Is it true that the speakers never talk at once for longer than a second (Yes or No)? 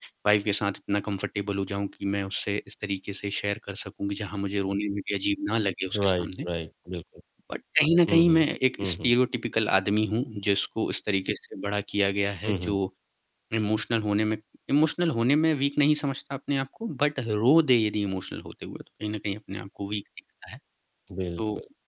Yes